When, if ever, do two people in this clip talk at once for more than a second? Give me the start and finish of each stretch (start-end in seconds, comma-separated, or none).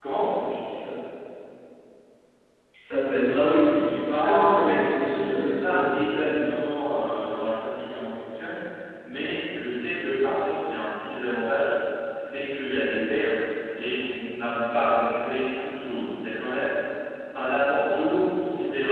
4.0-6.6